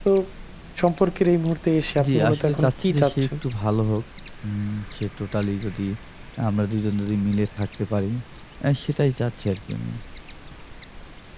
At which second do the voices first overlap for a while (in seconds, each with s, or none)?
2.0 s